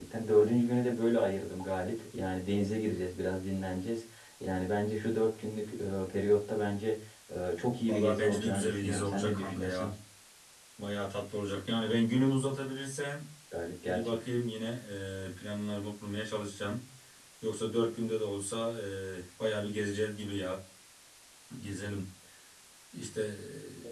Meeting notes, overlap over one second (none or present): present